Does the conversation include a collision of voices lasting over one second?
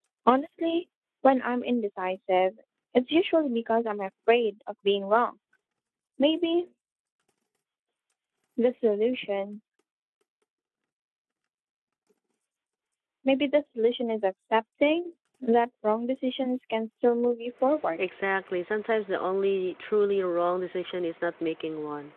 No

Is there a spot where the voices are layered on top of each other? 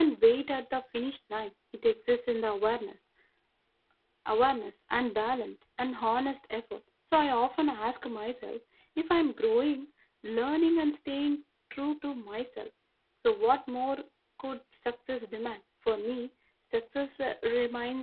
No

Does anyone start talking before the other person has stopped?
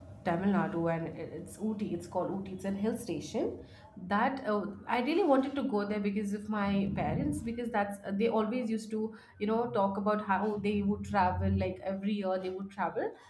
No

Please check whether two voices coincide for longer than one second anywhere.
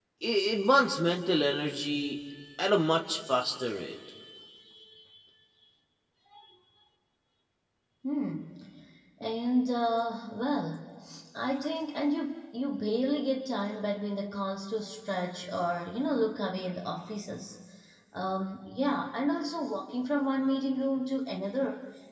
No

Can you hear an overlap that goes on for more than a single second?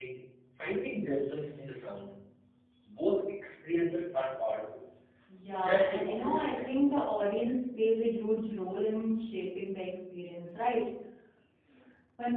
Yes, from 5.5 s

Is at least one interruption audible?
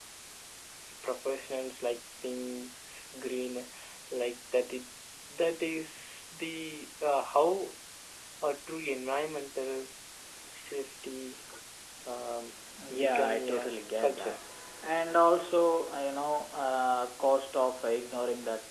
Yes, from 13.0 s

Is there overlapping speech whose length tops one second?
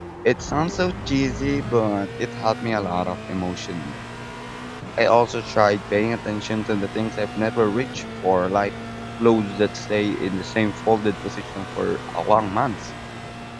No

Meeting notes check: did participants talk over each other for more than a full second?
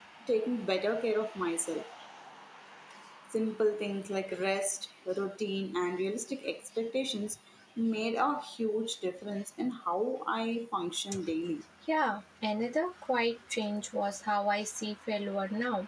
No

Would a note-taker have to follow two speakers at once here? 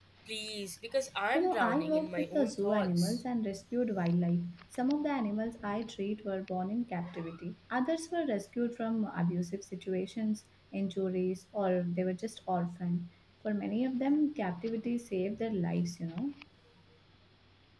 Yes, from 1.3 s

